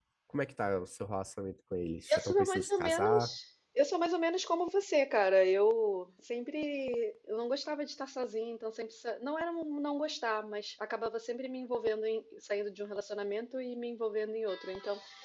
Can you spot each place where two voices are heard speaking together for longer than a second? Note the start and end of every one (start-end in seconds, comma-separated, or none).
2.1-3.3